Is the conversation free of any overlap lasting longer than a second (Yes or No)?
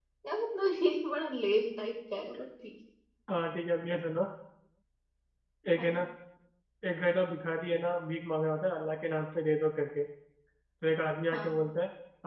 Yes